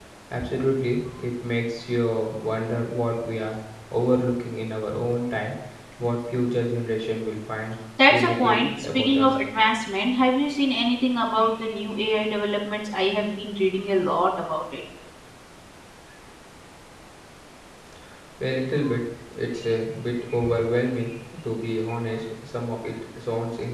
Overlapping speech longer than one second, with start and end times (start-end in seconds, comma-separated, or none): 8.1-9.3